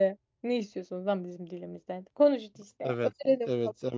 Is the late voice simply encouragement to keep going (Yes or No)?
No